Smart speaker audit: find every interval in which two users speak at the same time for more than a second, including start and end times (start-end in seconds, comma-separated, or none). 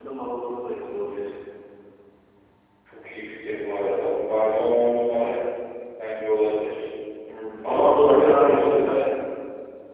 7.6-8.9